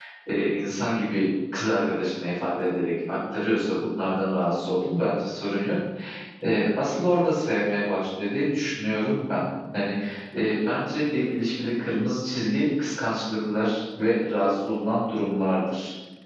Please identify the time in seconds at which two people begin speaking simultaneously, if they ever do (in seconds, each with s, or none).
none